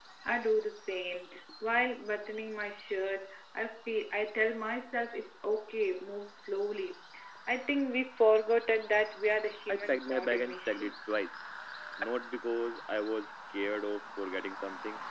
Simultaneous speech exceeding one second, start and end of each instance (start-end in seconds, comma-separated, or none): 9.7-10.9